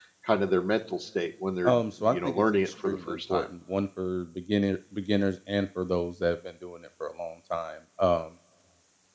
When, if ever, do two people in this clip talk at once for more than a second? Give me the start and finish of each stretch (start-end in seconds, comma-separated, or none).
1.6-3.5